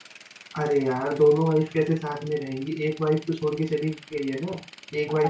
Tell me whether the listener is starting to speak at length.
Yes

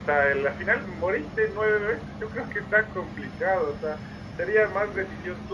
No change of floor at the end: Yes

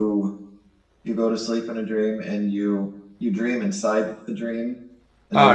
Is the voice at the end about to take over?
Yes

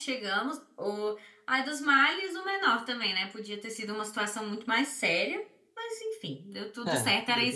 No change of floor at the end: Yes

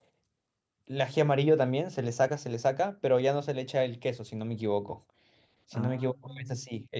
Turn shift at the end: No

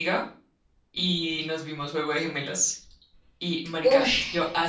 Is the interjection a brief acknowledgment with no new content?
Yes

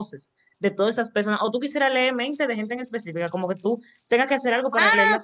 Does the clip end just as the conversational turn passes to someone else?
Yes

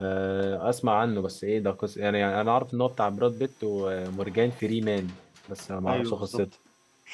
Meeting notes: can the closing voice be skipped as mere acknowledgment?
No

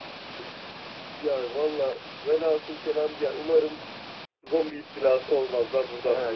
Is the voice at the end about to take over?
Yes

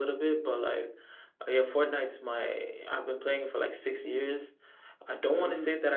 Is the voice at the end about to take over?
No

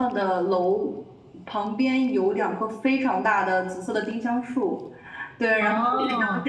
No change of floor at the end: Yes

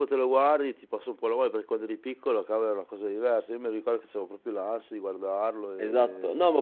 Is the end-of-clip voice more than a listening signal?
Yes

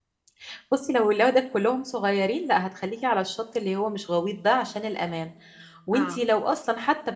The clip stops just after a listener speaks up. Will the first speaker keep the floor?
Yes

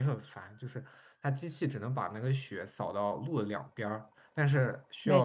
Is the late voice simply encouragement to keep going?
Yes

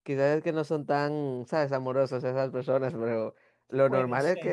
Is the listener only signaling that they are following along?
Yes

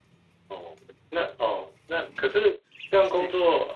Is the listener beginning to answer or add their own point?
No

